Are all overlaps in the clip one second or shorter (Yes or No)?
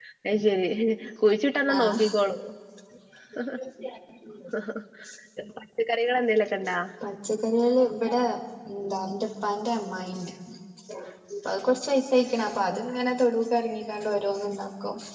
Yes